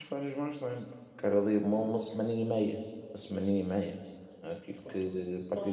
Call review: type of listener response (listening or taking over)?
taking over